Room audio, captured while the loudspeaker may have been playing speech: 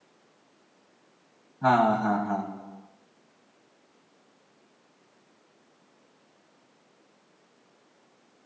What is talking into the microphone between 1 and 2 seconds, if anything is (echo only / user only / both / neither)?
user only